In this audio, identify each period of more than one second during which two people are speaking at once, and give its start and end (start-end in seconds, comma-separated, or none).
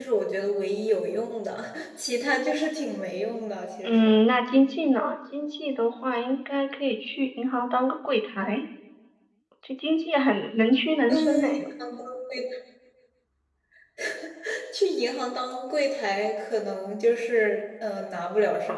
none